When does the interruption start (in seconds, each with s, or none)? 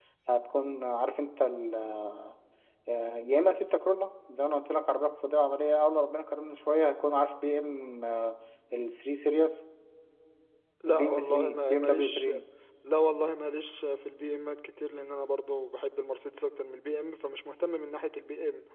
11.0 s